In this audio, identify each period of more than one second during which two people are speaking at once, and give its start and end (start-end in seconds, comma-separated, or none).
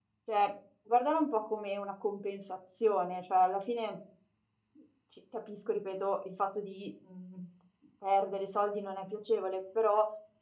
none